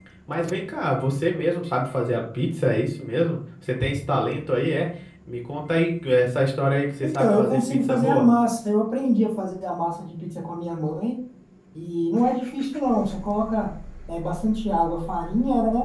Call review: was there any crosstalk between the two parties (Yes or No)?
Yes